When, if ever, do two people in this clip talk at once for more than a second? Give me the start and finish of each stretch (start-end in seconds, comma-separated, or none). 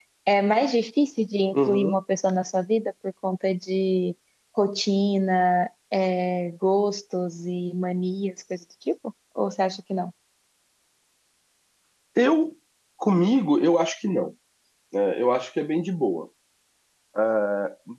none